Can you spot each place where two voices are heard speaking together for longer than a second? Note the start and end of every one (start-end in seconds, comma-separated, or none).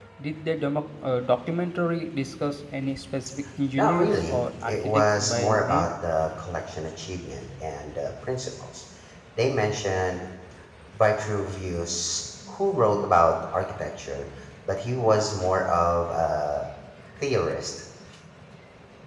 3.8-5.9